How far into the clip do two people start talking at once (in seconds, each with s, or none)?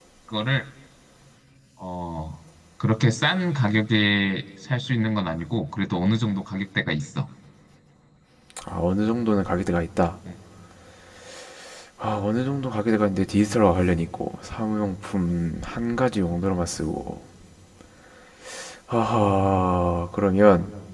none